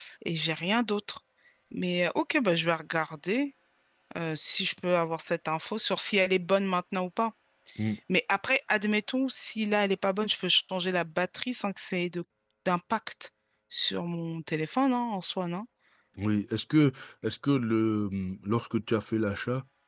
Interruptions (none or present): none